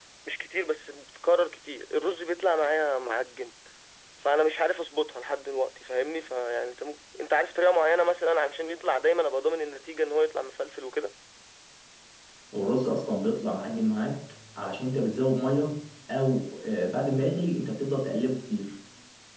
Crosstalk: none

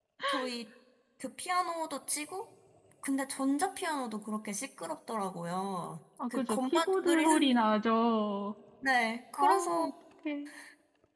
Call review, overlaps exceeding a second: present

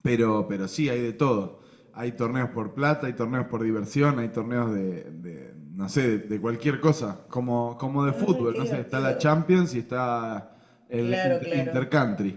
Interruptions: present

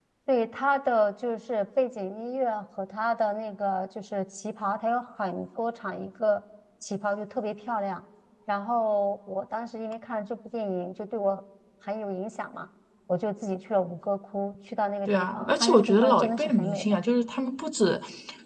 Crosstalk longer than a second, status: present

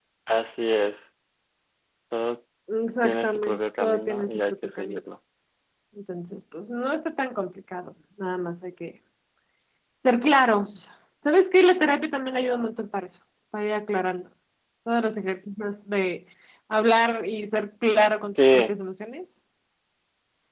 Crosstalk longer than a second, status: present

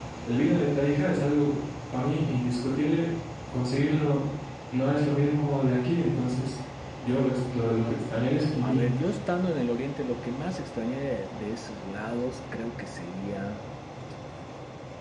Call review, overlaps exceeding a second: none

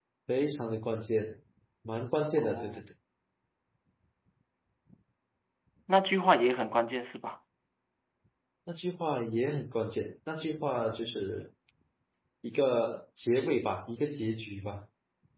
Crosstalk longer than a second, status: none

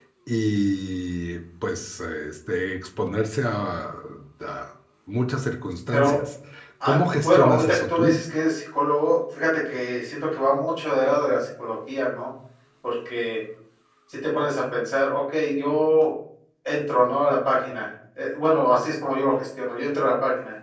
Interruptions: present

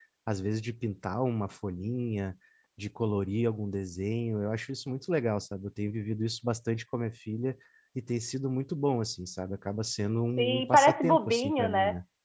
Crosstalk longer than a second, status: present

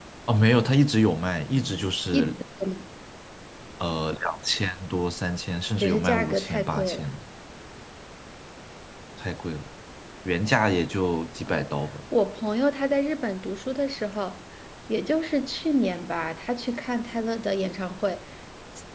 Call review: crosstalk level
present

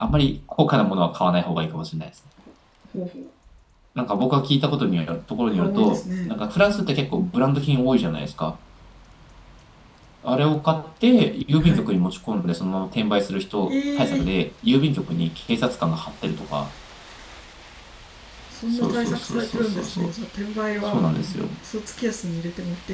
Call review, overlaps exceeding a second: present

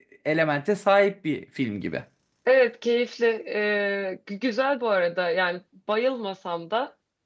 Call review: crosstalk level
none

